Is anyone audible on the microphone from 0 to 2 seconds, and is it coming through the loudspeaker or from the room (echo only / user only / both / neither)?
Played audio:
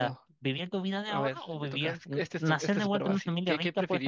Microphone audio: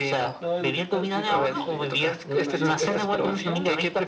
both